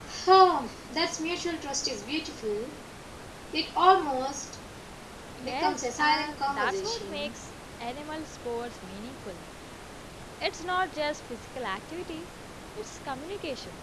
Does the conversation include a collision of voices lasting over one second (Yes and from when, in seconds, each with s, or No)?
Yes, from 5.4 s